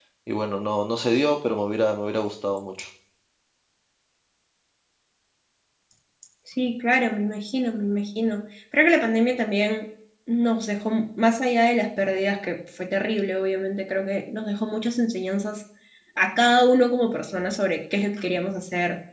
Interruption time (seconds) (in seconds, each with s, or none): none